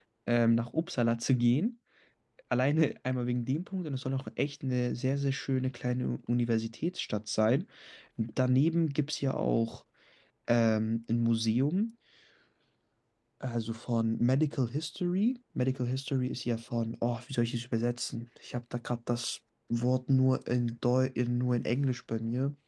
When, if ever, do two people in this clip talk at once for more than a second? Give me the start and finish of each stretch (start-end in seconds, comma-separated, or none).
none